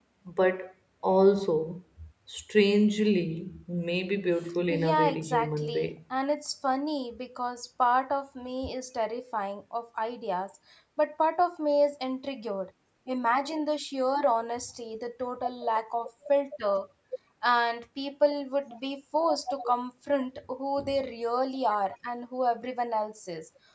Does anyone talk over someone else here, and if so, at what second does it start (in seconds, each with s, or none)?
4.7 s